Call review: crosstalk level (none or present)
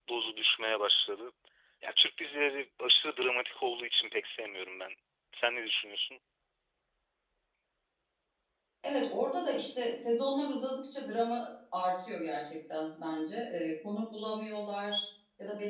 none